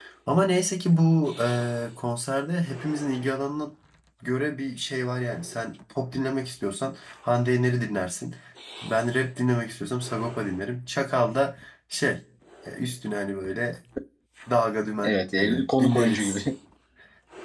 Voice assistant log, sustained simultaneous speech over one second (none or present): present